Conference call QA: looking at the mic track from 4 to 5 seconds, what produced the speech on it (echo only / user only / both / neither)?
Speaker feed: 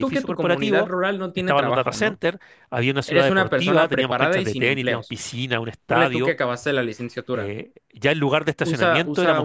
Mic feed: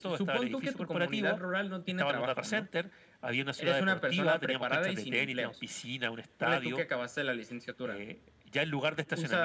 echo only